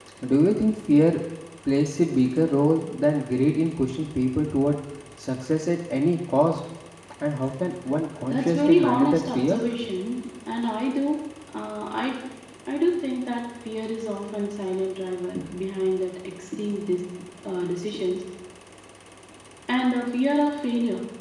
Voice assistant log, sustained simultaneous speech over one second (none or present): present